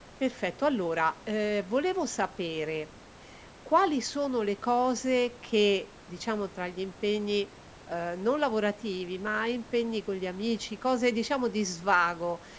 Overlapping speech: No

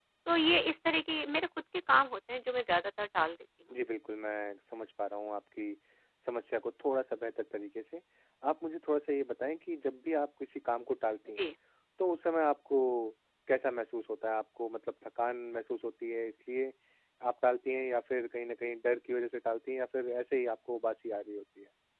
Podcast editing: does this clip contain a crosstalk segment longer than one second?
No

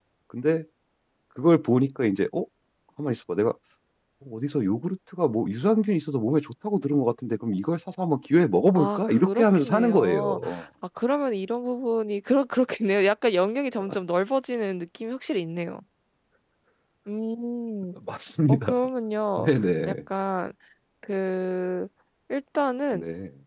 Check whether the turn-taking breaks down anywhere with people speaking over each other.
Yes, from 8.8 s

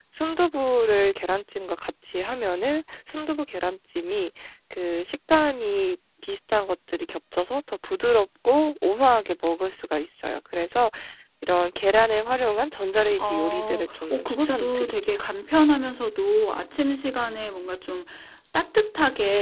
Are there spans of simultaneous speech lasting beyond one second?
Yes, from 13.2 s

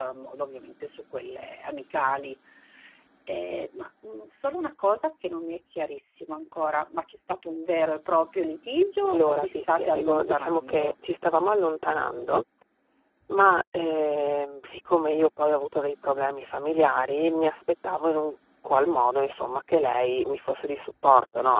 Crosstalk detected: Yes, from 9.0 s

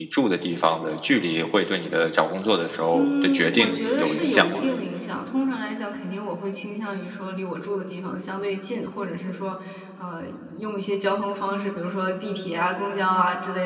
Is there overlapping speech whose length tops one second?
Yes, from 2.9 s

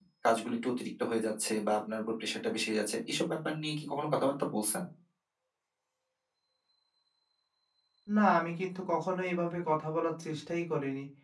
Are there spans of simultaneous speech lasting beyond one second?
No

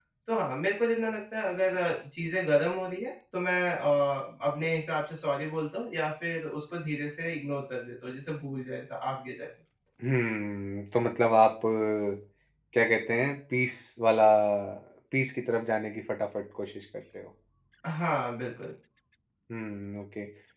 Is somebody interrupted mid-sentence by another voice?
No

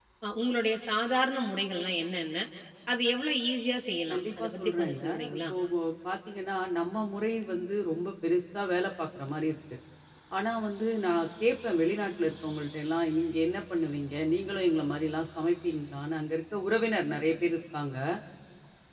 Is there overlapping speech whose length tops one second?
Yes, from 4.1 s

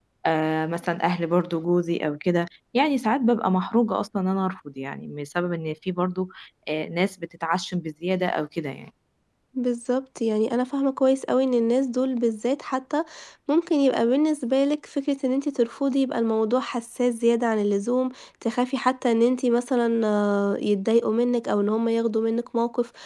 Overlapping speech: No

